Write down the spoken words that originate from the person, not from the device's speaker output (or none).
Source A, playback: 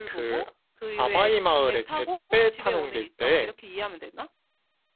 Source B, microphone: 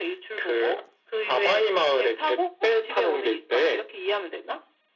none